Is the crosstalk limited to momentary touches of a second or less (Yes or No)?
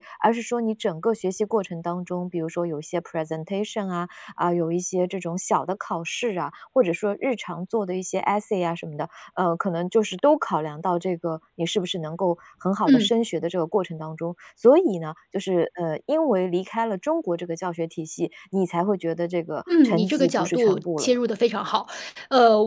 No